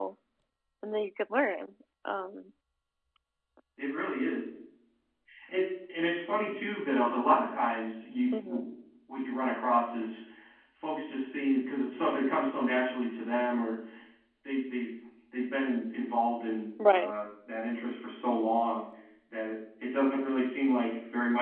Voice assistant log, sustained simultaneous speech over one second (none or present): none